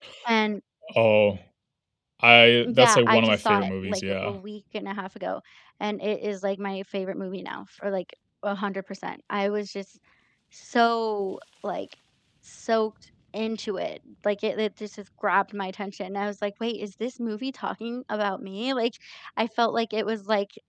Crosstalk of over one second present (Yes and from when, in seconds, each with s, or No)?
Yes, from 2.6 s